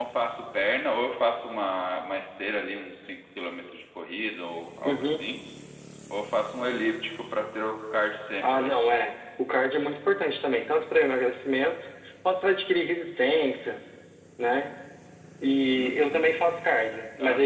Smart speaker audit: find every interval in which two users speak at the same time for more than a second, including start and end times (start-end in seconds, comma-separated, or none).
none